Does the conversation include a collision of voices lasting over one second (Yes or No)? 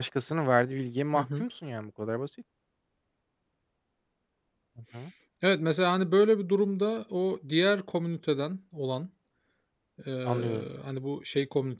No